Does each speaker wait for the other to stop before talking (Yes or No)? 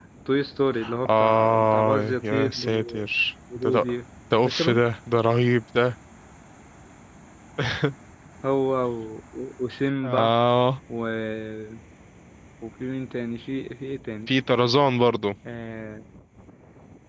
No